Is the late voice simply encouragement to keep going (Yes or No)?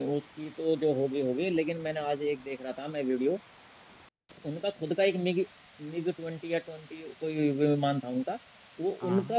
Yes